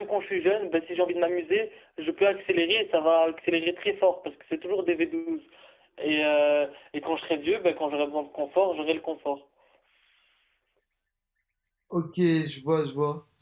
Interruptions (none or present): none